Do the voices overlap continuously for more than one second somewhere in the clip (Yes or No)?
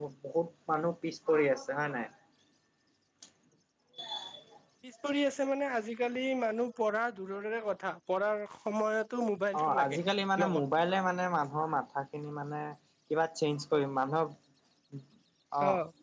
No